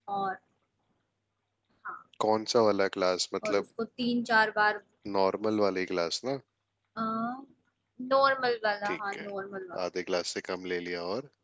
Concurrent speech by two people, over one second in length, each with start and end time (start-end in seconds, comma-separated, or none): none